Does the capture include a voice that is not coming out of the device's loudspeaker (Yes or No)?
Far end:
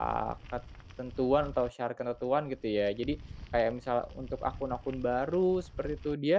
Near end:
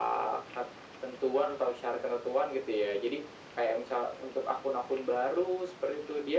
No